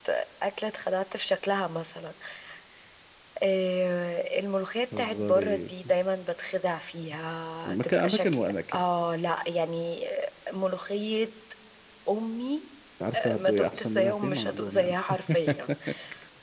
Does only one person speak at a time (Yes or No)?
No